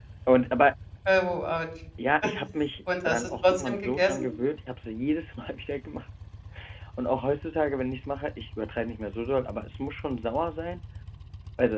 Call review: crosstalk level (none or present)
present